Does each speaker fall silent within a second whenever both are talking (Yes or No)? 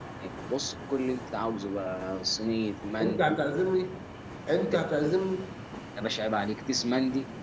Yes